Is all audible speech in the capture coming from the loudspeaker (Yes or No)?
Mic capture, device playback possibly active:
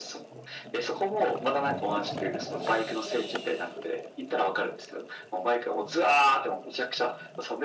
Yes